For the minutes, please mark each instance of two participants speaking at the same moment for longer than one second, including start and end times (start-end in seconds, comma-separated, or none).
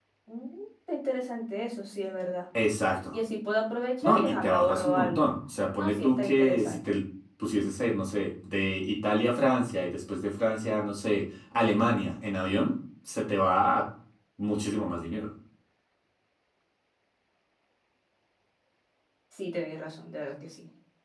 4.0-5.3, 5.8-7.0